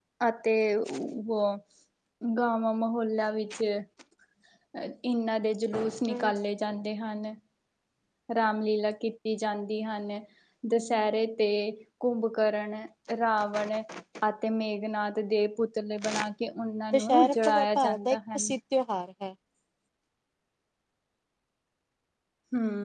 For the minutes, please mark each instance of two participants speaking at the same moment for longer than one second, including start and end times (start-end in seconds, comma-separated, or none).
16.9-18.4